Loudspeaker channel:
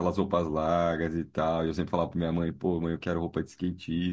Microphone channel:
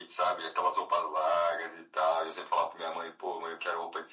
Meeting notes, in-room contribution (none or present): none